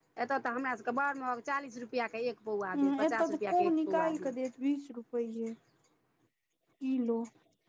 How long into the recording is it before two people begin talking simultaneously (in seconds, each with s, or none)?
2.7 s